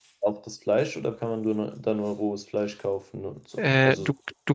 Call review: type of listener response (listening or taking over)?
taking over